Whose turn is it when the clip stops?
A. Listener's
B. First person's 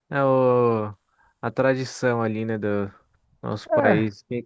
B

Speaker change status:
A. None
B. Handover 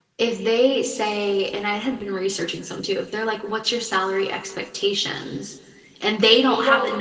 B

